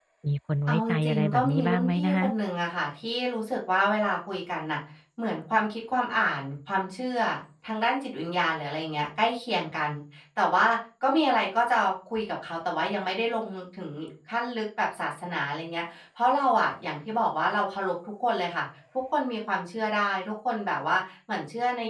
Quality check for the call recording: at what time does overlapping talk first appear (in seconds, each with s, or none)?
0.7 s